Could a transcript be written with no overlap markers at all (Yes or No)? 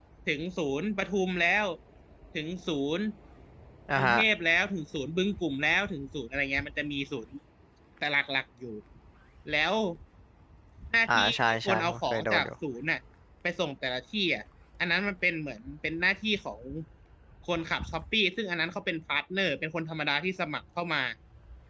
No